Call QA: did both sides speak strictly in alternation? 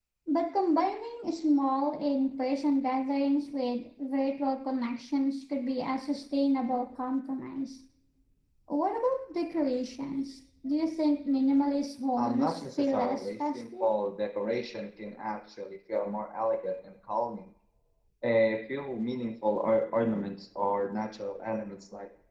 No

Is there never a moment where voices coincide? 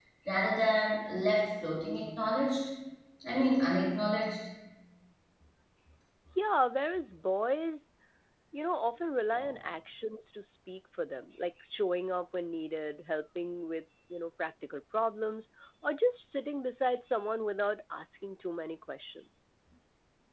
Yes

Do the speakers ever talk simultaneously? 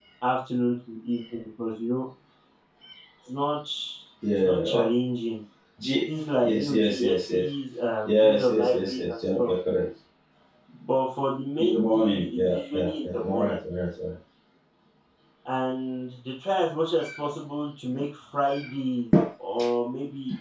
Yes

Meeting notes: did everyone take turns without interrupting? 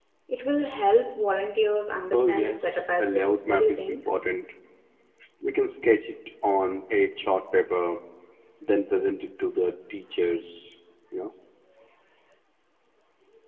No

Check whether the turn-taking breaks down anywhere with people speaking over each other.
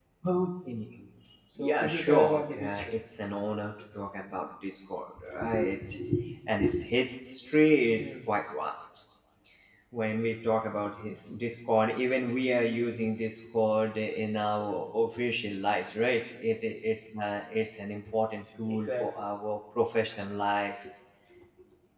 Yes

